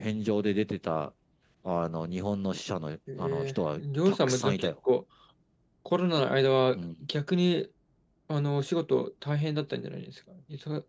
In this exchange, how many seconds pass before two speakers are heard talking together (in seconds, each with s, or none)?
3.2 s